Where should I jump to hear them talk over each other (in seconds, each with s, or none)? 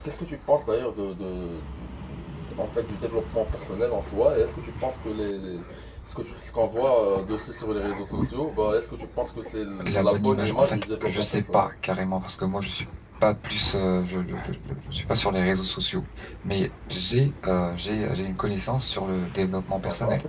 9.9 s